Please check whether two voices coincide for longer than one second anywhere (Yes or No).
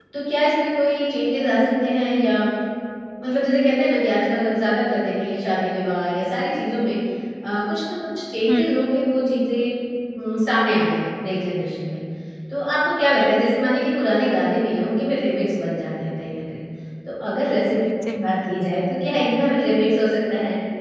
No